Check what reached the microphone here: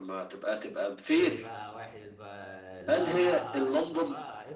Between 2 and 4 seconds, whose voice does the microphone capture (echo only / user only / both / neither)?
both